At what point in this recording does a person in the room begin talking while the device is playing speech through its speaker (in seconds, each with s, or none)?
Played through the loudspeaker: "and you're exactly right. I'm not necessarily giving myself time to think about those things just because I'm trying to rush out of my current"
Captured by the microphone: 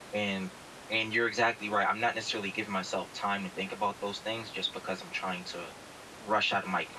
none